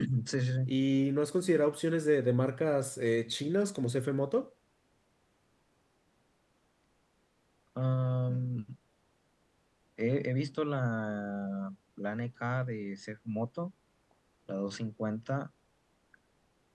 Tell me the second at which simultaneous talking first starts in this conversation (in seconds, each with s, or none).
none